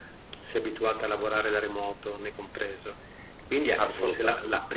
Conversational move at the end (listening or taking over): listening